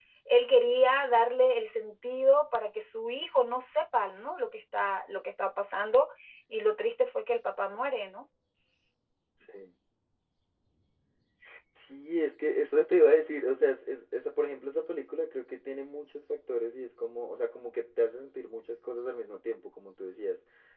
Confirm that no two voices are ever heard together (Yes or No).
Yes